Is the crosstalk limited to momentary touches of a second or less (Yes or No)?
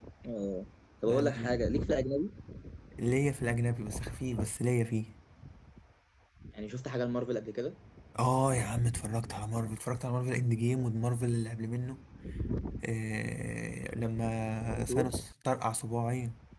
Yes